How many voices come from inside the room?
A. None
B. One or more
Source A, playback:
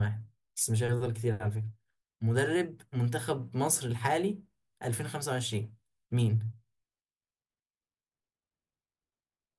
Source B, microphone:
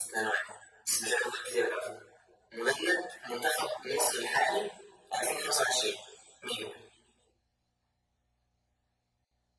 A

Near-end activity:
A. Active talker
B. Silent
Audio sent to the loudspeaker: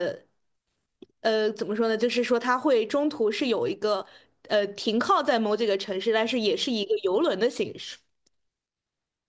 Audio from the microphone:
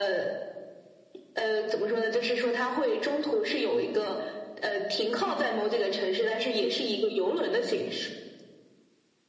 B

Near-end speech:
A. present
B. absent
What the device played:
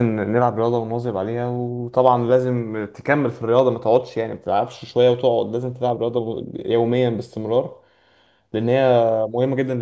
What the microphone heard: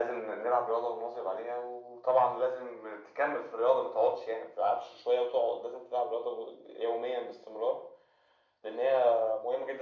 B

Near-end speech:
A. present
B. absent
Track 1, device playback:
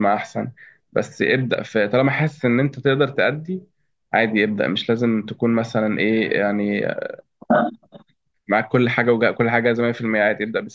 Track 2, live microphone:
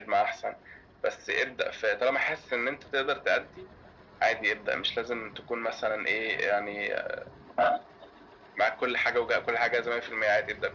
B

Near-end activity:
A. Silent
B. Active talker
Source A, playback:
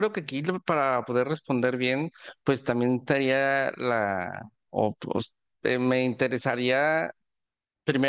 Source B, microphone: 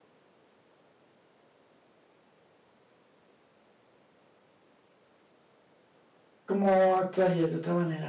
B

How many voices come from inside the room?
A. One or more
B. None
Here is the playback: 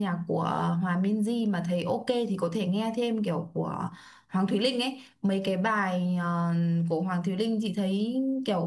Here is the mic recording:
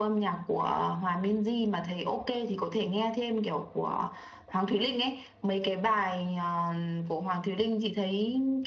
B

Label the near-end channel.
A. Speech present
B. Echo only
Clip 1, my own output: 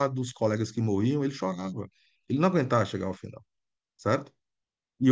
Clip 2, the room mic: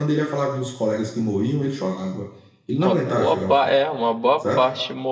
A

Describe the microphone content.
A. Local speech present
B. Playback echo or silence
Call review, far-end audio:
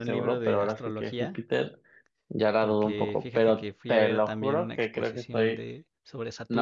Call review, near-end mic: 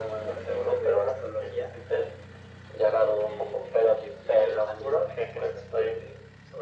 B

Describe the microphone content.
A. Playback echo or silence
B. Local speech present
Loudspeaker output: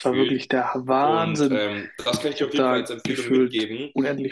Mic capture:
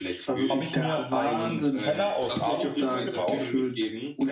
B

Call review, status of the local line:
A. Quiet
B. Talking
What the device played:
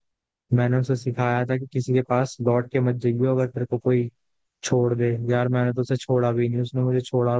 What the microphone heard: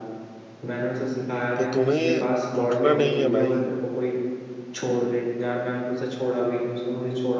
B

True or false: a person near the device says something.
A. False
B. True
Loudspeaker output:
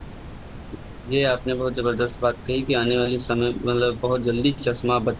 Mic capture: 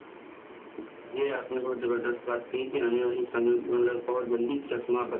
A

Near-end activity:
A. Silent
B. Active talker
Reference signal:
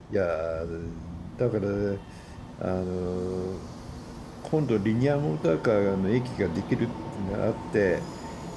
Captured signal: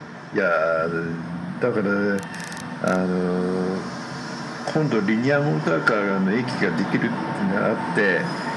A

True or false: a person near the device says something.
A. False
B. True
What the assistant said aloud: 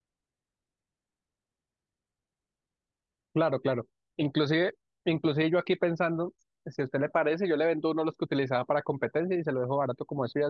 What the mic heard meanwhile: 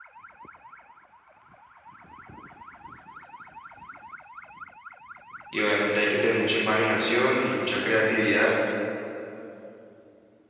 B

